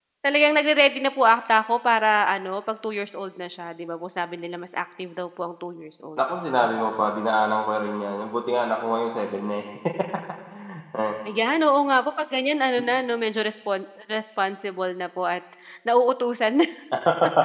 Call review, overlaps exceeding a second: none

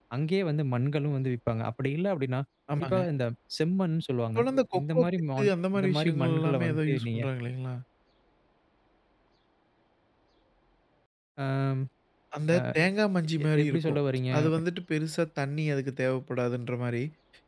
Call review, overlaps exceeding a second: present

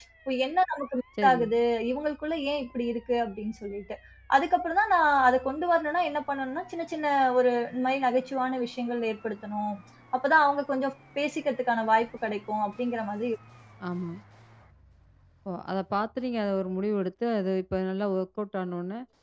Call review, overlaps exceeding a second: none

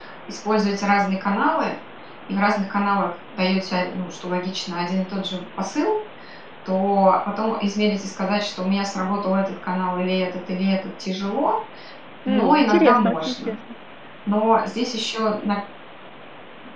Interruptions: present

